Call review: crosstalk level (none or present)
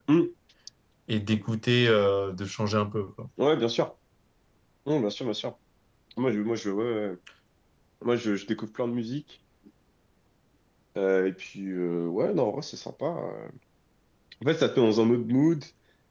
none